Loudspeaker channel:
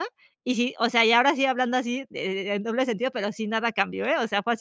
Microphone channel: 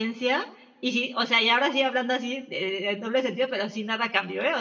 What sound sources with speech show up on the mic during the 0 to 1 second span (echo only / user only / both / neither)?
echo only